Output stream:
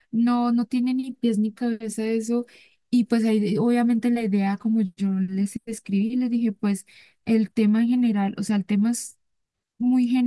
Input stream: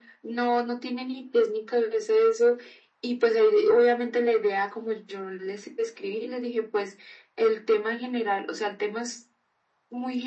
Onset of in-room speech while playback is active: none

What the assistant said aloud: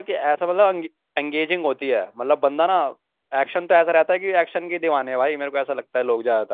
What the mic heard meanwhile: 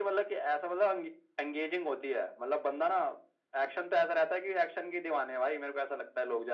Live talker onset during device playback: none

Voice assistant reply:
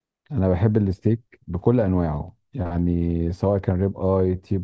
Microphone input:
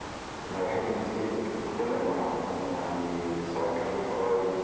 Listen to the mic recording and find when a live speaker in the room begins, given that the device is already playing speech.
none

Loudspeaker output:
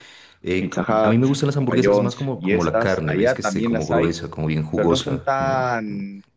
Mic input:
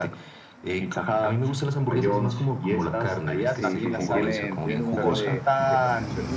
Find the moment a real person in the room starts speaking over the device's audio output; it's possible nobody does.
3.4 s

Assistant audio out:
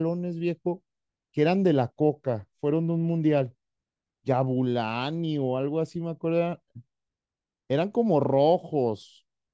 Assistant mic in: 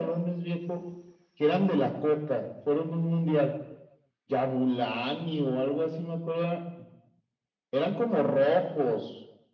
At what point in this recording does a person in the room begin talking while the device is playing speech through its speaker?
none

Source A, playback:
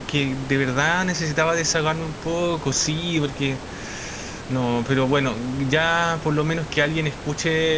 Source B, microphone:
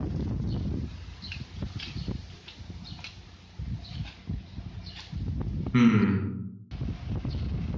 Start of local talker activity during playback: 5.7 s

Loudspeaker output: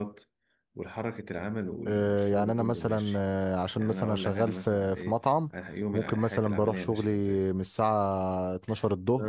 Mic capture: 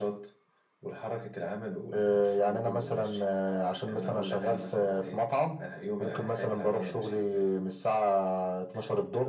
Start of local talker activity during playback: none

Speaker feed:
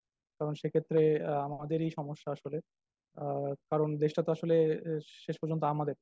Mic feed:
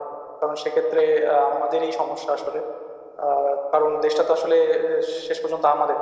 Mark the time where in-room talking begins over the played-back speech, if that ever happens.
none

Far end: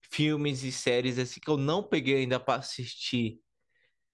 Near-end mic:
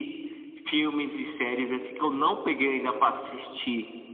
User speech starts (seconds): none

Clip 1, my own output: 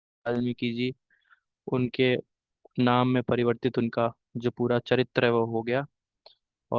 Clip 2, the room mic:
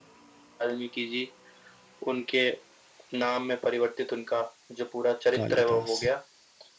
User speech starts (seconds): 5.4 s

